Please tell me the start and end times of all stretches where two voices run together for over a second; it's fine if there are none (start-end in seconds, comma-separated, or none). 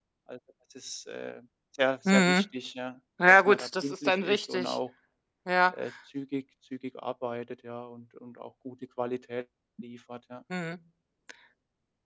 3.3-4.8